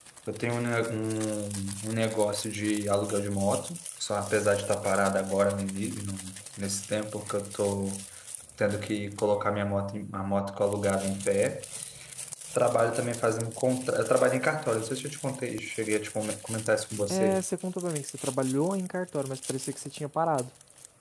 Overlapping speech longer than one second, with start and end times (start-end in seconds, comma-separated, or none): none